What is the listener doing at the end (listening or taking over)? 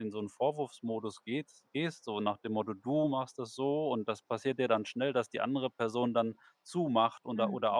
listening